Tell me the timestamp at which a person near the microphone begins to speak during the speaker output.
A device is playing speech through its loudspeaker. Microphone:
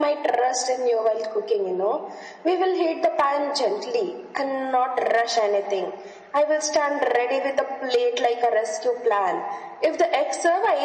none

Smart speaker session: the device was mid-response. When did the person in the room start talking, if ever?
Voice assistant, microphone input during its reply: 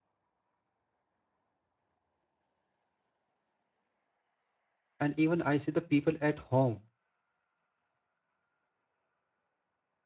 5.0 s

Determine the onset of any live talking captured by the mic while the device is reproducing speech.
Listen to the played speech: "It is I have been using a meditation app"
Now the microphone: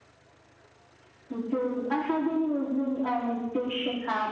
none

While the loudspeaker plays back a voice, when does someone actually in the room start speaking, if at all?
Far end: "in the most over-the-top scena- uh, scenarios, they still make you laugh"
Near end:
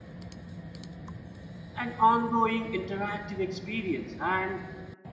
1.8 s

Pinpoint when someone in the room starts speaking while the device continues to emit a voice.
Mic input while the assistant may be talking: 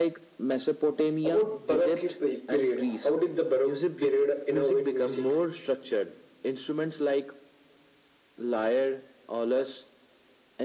none

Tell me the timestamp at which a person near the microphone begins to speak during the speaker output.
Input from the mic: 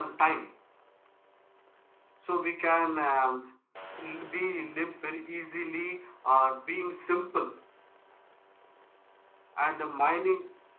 none

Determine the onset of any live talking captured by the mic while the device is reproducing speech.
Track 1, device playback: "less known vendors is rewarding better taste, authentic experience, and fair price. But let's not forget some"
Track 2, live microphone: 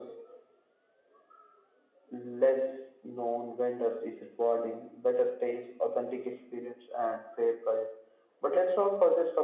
none

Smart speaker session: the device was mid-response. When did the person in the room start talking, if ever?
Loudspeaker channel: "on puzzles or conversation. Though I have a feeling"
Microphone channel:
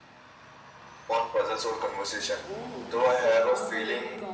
2.5 s

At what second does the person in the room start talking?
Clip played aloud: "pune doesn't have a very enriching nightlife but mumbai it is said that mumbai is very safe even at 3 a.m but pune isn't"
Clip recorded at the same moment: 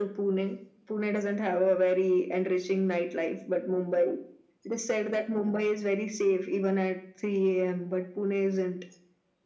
none

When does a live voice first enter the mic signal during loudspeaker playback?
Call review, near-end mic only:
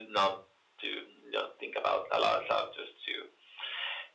none

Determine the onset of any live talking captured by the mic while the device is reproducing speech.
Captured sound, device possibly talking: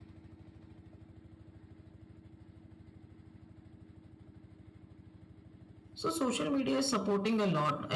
5.9 s

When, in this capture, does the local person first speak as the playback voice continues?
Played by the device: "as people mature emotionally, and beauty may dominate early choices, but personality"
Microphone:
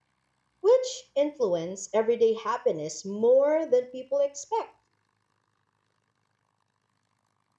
0.6 s

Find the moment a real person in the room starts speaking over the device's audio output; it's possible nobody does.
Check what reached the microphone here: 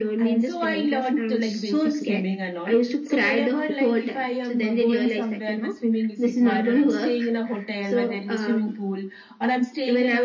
none

